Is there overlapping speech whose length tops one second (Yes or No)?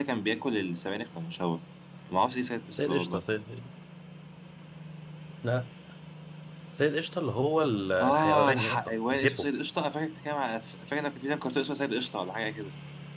Yes